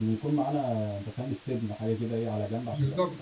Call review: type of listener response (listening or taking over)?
taking over